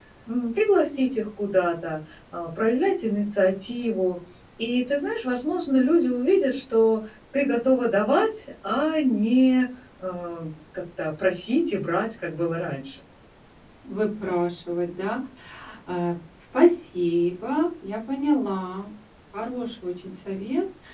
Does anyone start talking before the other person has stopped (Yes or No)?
No